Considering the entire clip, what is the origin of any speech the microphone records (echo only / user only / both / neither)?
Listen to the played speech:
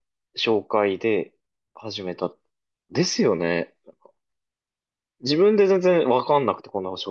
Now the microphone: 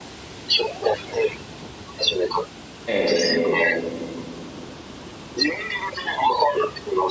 both